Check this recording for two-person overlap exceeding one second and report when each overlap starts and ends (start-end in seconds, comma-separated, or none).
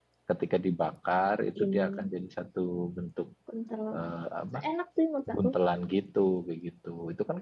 none